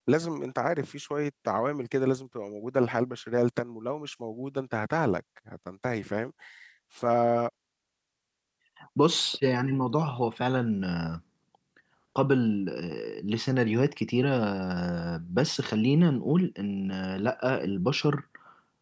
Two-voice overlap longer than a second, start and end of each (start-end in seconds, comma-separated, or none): none